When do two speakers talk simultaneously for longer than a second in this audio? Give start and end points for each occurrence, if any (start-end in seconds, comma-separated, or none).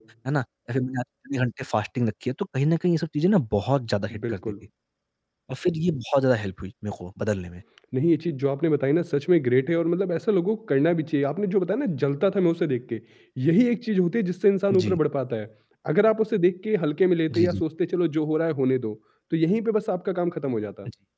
none